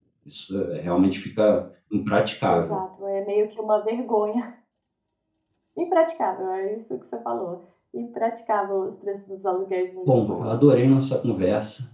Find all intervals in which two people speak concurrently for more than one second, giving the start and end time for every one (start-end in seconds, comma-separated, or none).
none